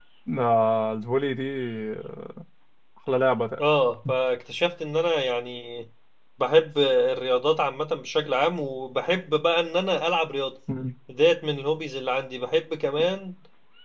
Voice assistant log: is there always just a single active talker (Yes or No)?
Yes